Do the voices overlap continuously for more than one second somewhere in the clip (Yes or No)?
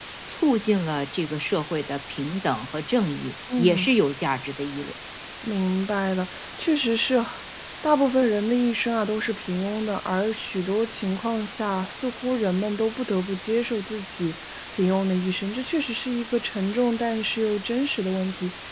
No